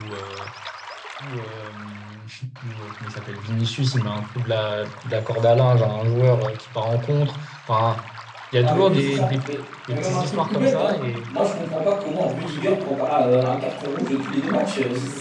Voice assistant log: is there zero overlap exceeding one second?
No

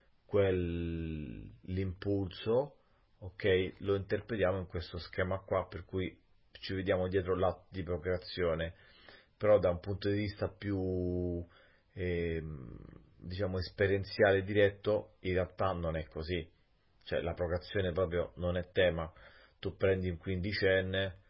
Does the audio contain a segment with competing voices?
No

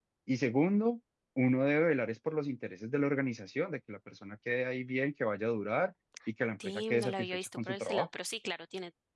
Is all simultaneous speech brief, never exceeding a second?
No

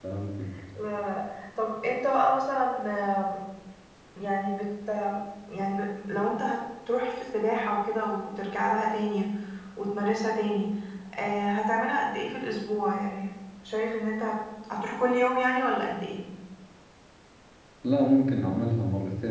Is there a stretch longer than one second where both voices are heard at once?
No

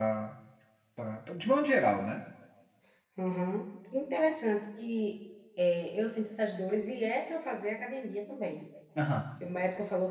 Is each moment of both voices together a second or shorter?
Yes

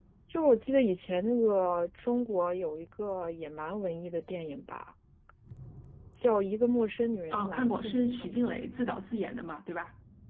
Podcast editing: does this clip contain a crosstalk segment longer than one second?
Yes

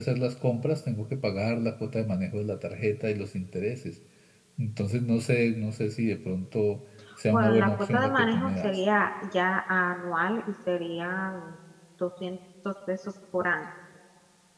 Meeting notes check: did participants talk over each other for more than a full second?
Yes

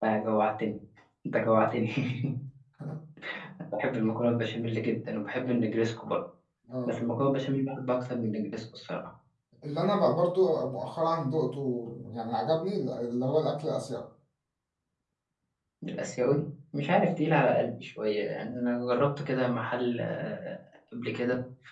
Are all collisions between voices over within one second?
Yes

